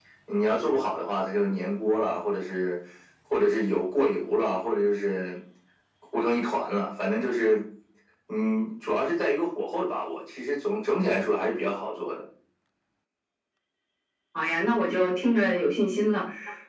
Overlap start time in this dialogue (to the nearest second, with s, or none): none